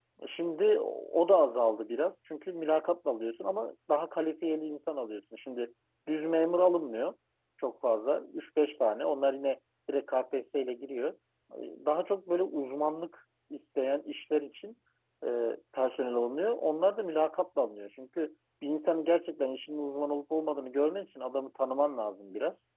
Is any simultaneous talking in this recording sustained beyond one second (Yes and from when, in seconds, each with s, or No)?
No